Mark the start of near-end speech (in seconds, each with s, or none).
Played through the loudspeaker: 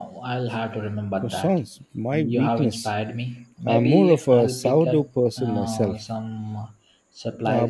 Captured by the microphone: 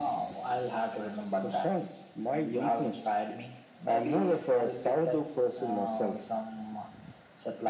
none